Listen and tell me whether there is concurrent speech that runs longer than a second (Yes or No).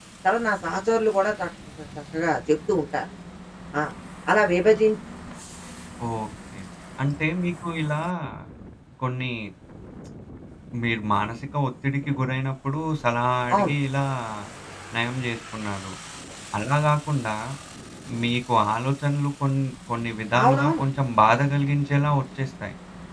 No